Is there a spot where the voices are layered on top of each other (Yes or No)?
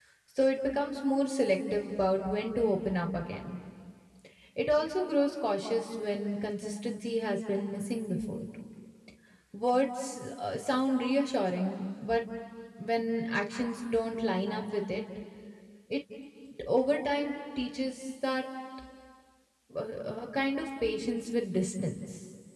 No